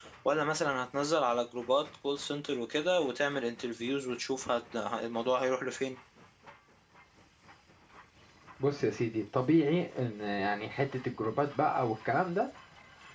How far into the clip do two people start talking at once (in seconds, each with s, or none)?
none